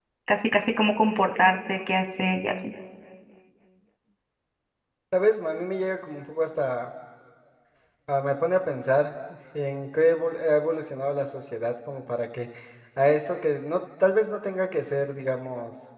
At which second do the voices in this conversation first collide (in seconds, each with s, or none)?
none